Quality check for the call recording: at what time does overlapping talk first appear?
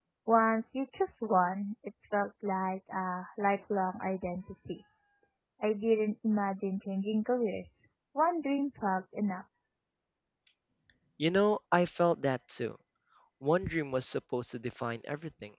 none

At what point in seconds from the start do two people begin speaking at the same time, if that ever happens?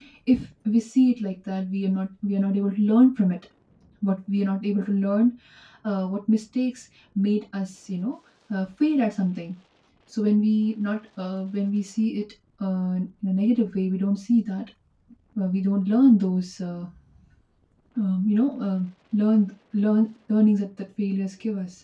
none

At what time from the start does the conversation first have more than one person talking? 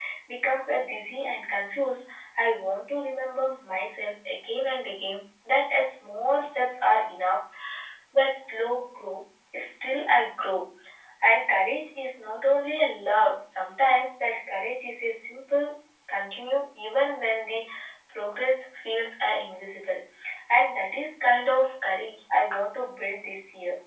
none

